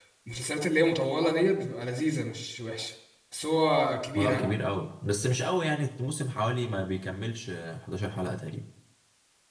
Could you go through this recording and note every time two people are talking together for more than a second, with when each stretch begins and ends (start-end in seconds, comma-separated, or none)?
none